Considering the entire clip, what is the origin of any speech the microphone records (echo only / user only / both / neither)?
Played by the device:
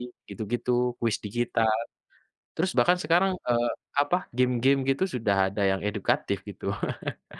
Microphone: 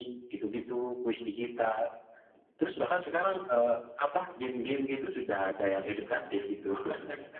echo only